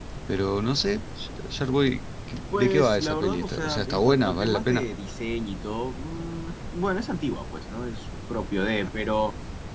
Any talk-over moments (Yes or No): Yes